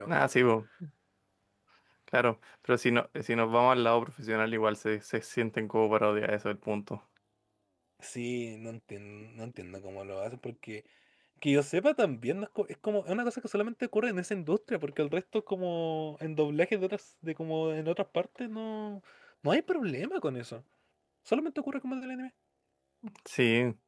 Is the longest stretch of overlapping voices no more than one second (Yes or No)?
Yes